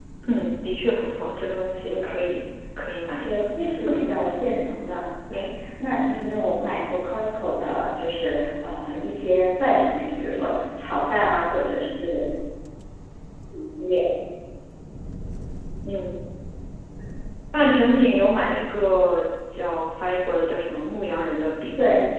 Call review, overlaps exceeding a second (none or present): none